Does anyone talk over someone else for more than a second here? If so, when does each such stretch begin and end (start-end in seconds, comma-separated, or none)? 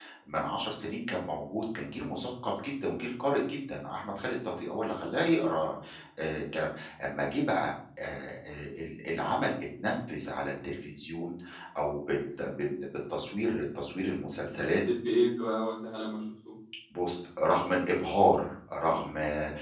none